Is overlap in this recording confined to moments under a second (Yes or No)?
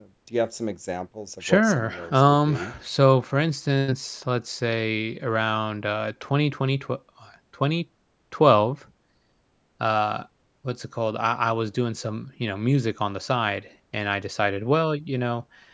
No